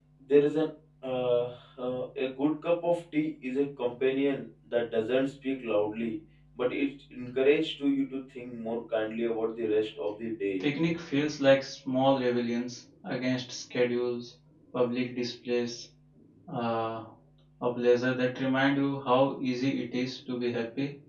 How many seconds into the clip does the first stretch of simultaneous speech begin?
none

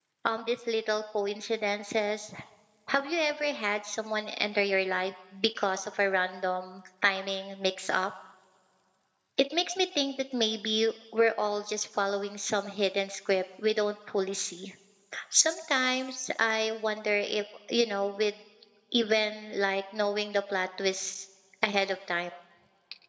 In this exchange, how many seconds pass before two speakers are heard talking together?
none

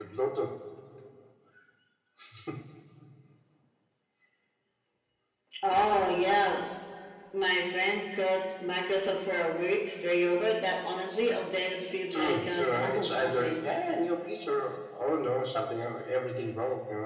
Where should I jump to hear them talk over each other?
12.1 s

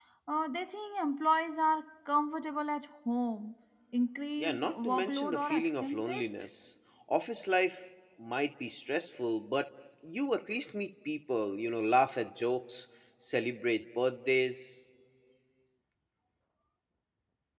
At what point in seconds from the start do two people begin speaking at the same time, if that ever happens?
4.4 s

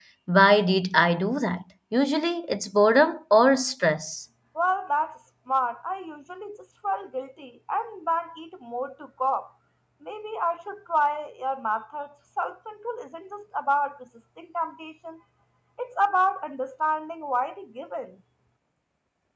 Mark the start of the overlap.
none

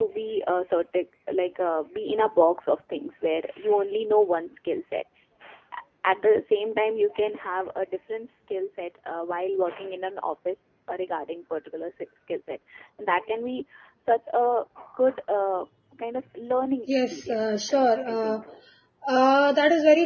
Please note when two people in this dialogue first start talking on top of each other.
16.9 s

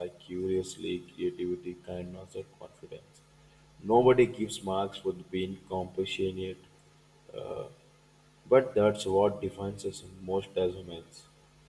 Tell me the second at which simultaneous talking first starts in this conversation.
none

